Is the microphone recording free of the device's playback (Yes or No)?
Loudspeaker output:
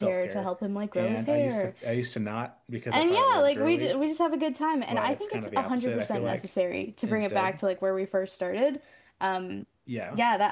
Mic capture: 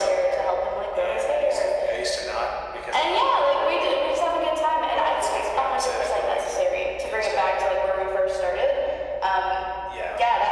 No